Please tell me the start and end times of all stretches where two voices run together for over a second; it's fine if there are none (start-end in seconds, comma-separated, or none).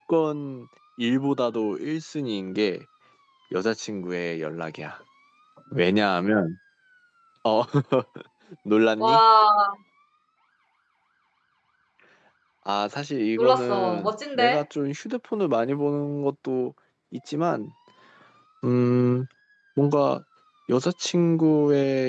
13.4-14.6